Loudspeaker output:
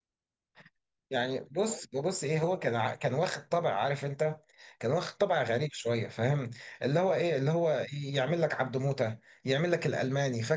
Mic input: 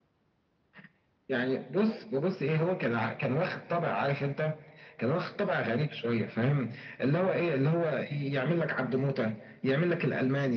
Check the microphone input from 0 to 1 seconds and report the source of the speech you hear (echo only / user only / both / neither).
neither